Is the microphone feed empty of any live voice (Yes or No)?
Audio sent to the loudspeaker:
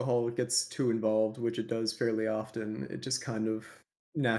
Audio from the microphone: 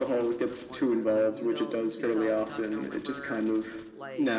No